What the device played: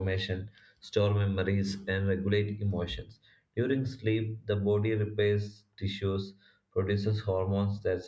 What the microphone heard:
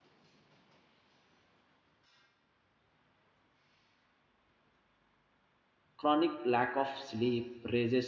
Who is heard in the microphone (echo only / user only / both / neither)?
user only